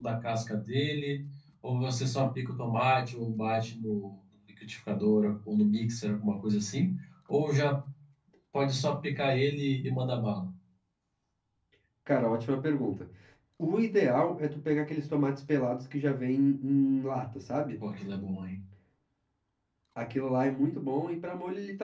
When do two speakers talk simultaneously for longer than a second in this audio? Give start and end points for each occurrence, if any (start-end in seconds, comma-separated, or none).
none